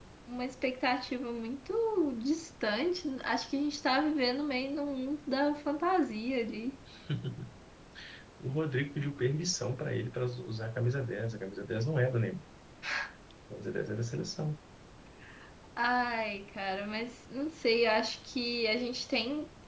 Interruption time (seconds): none

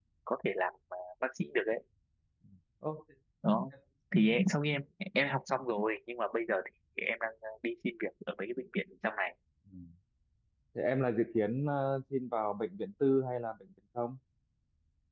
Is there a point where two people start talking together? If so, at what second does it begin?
none

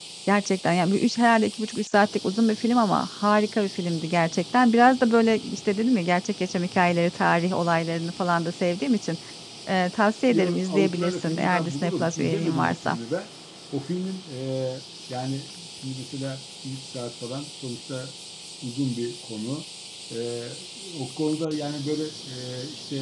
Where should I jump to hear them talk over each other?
10.3 s

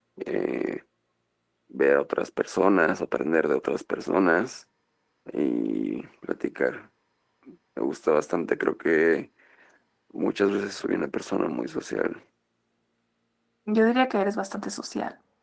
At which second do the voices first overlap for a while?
none

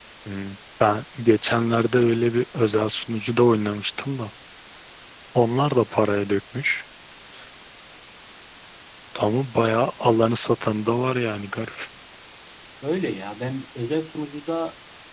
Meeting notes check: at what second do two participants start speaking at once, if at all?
none

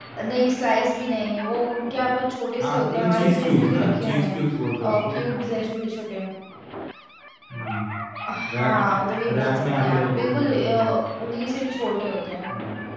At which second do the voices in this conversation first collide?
2.6 s

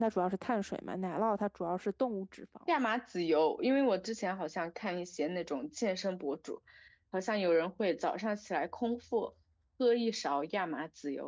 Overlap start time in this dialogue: none

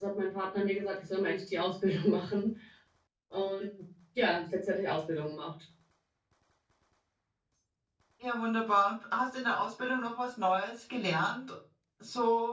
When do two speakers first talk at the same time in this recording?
none

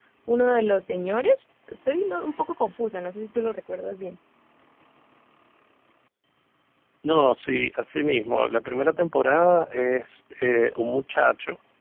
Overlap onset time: none

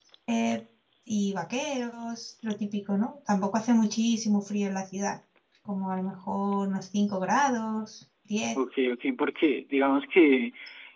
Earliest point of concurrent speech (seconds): none

